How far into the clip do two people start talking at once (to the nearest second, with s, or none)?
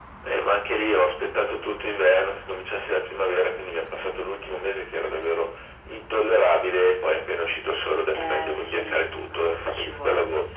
8 s